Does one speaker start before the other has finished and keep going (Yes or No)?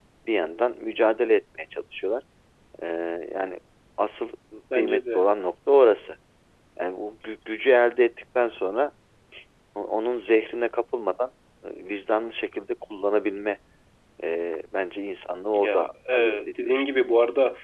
Yes